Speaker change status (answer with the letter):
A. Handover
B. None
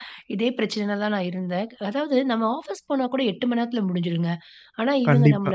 B